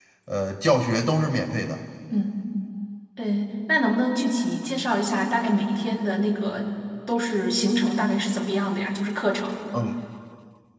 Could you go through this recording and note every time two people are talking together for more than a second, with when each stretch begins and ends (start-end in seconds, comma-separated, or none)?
none